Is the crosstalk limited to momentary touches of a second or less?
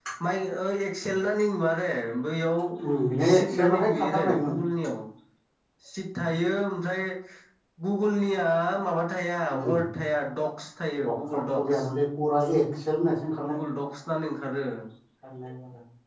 No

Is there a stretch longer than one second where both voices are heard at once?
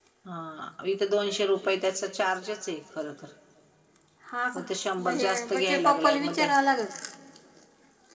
Yes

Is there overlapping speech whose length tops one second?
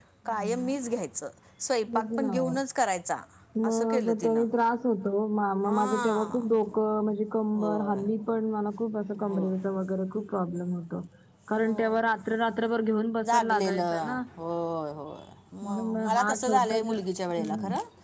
Yes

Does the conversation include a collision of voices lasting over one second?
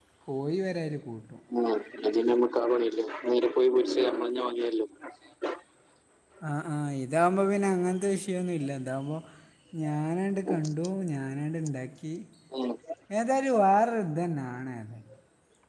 No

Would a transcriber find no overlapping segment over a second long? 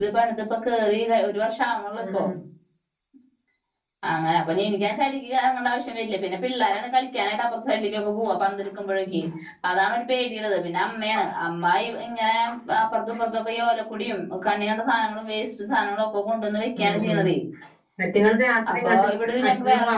Yes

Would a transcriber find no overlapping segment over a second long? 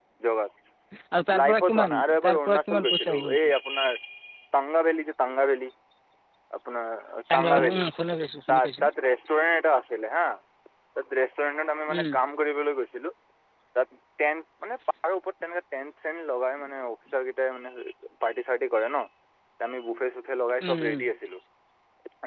No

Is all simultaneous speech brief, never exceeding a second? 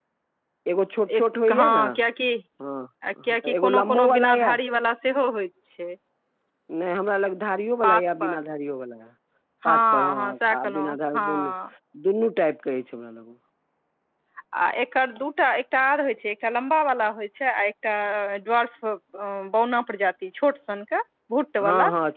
No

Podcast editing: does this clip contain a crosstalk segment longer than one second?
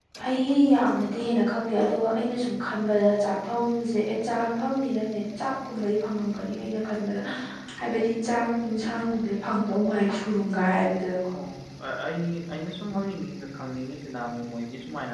No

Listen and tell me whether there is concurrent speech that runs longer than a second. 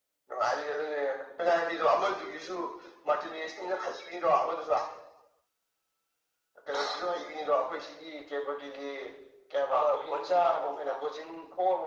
Yes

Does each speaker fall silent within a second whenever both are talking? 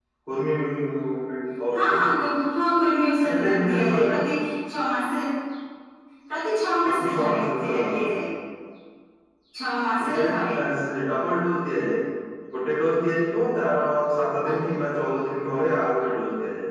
No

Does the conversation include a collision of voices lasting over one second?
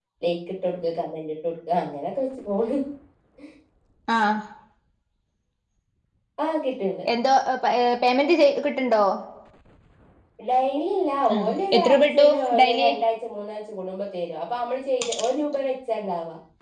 Yes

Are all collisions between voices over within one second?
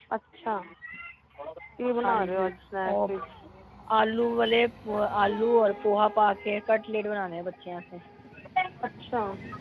Yes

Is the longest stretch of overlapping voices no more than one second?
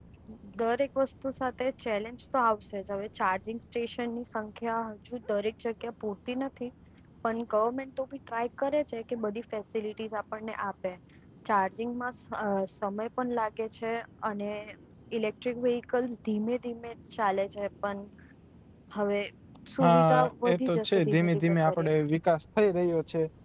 No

